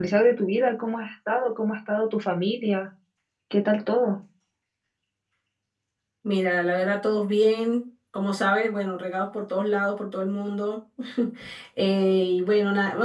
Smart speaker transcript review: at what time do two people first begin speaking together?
none

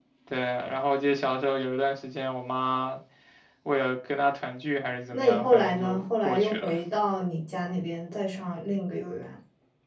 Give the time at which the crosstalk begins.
5 s

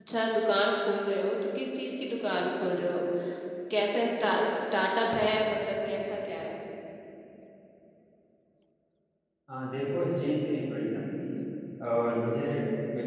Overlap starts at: none

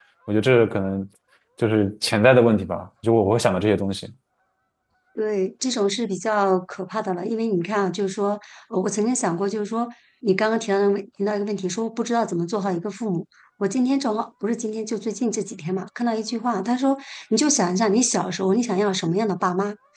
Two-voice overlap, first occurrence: none

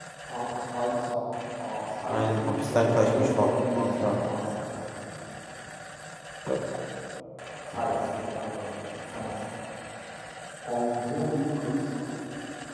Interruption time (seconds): 2 s

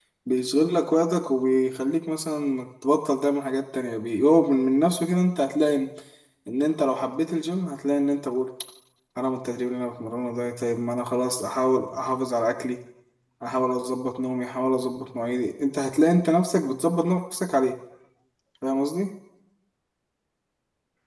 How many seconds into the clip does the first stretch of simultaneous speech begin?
none

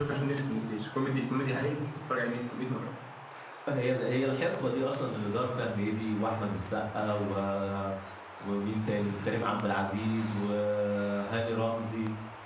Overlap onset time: none

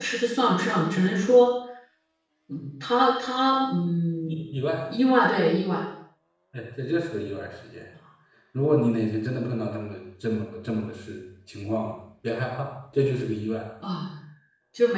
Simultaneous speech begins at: none

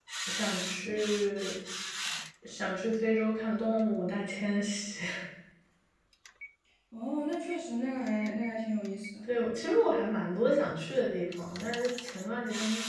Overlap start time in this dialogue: none

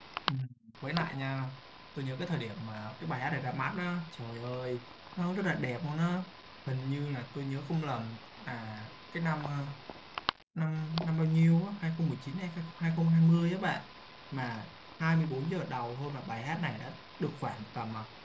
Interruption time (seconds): none

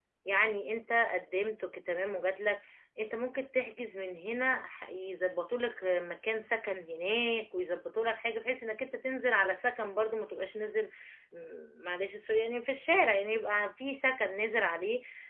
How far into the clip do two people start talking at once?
none

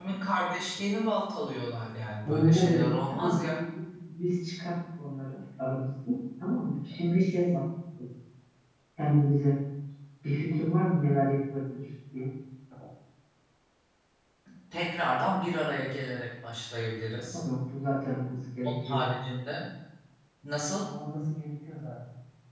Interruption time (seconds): 2 s

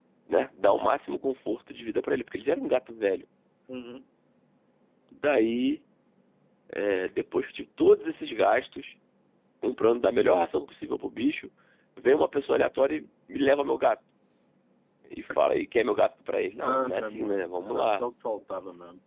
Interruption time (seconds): 17 s

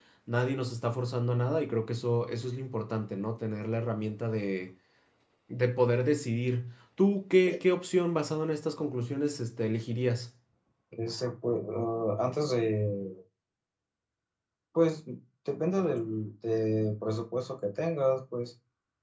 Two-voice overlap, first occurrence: none

